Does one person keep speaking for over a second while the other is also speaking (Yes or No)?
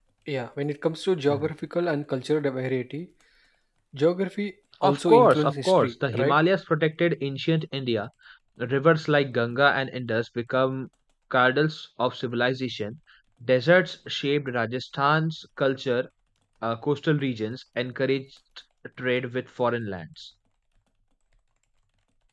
Yes